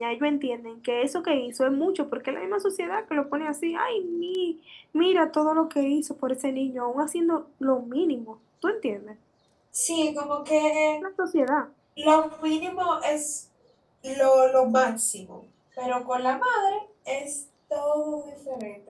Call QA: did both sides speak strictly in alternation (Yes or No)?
Yes